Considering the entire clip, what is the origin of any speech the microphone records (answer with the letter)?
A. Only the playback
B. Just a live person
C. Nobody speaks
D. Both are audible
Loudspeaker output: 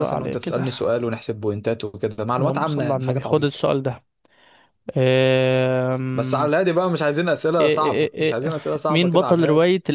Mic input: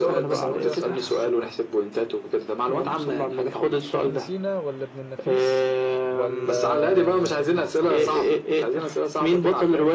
D